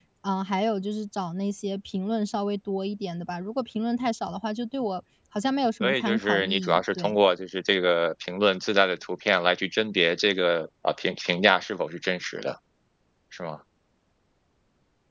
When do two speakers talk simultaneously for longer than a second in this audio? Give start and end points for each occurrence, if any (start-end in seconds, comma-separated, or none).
5.8-7.2